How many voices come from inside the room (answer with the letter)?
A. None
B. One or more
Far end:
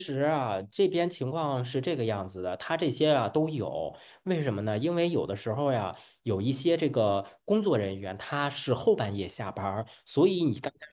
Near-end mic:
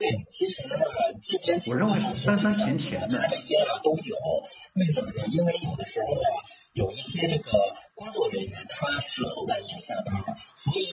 B